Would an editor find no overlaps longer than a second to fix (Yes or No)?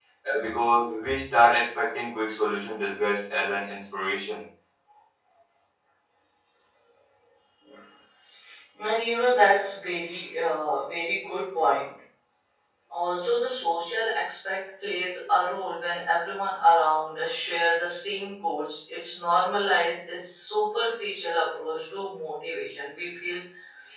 Yes